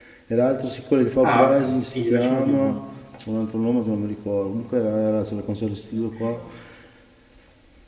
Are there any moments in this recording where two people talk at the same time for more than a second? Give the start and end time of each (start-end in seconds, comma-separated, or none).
1.2-2.8